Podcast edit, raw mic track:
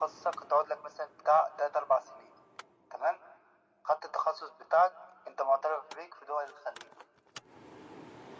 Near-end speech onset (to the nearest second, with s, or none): none